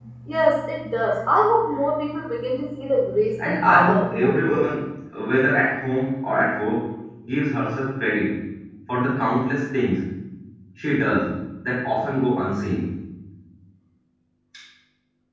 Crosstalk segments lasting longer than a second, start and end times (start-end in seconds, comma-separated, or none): 3.5-4.7